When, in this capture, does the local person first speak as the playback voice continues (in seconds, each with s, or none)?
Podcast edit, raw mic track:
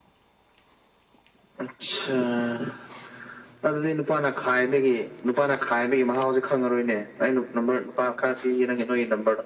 none